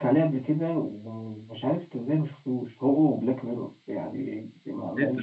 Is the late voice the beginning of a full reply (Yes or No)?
No